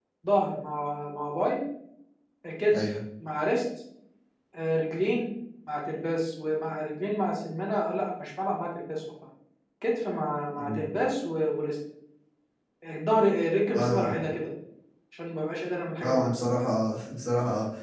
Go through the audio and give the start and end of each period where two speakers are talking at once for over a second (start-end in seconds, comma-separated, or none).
none